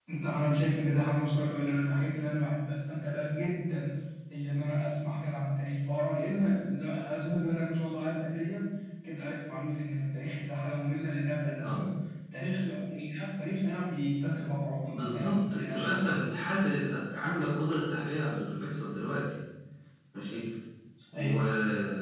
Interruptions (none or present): present